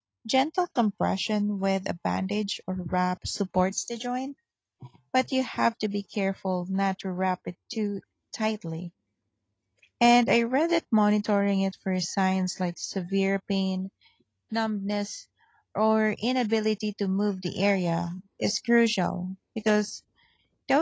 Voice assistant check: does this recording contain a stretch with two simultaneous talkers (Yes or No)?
No